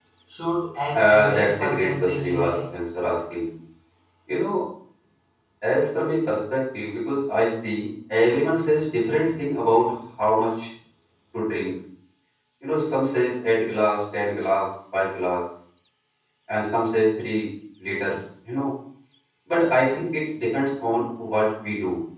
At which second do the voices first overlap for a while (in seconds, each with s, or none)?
0.9 s